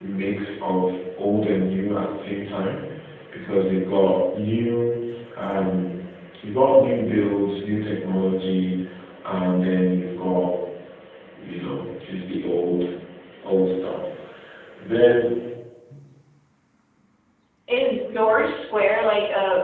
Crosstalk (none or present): none